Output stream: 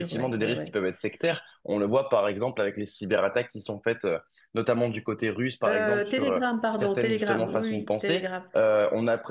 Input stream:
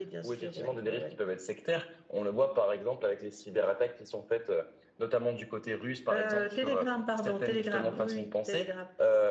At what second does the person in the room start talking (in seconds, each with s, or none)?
none